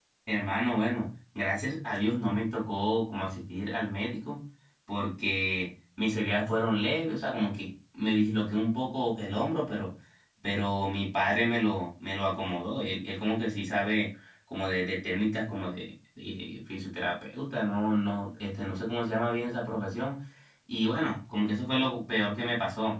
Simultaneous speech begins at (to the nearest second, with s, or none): none